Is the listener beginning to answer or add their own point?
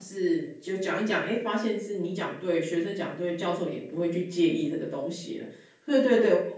Yes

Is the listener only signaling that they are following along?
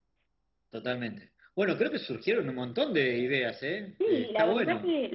No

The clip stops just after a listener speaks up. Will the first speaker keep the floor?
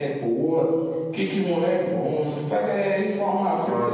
No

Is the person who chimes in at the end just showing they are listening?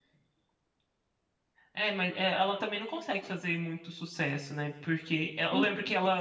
Yes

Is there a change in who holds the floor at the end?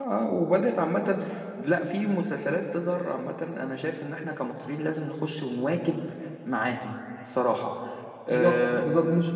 Yes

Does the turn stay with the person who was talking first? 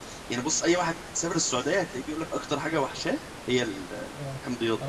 No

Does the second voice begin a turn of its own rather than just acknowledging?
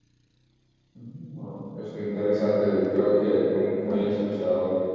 No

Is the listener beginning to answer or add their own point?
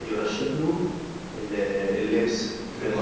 Yes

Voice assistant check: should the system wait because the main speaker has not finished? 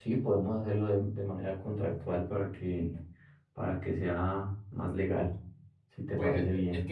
No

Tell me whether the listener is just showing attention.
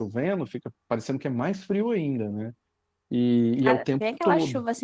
No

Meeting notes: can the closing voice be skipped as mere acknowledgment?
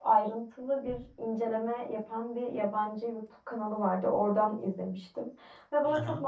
Yes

